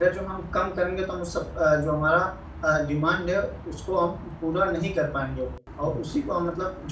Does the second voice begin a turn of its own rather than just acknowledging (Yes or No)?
No